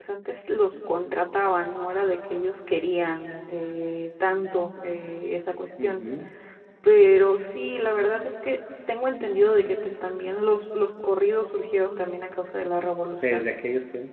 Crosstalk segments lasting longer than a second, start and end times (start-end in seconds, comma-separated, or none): none